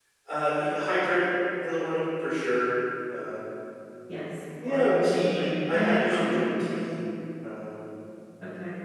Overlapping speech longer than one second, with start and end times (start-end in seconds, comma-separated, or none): 4.7-6.9